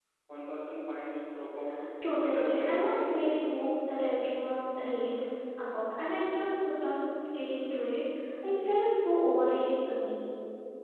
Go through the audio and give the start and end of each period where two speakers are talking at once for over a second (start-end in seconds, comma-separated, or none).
2.2-3.6